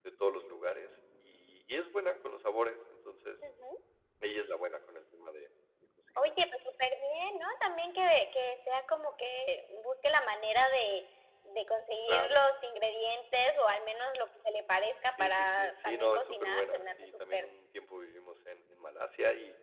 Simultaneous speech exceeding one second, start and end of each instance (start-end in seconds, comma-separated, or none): 15.1-17.5